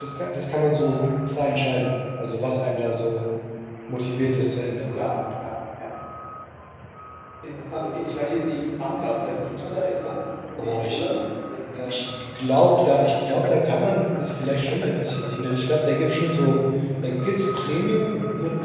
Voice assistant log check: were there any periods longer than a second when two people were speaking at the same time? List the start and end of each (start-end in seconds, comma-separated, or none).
none